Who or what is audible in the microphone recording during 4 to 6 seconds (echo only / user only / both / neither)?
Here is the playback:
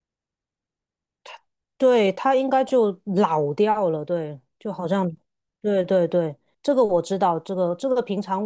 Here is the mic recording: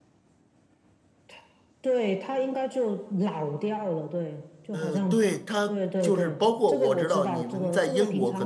both